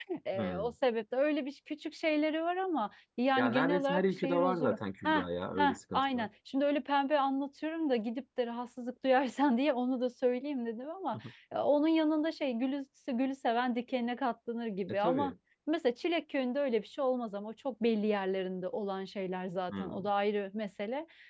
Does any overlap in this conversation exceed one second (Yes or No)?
Yes